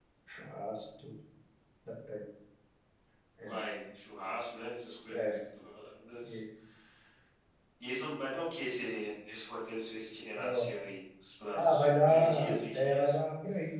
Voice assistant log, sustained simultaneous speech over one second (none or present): present